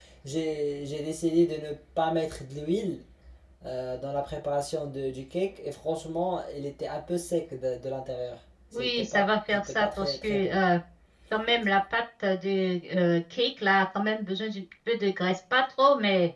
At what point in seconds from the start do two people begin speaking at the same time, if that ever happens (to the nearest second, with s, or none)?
9 s